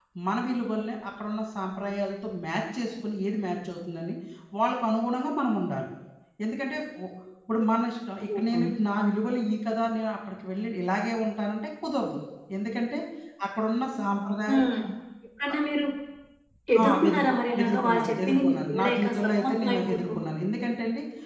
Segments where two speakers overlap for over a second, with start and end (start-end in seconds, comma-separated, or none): 16.8-20.0